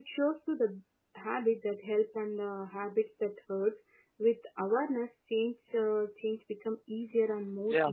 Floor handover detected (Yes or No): Yes